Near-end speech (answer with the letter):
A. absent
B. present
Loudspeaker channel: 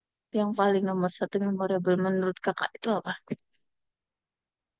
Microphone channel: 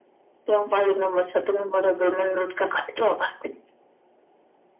A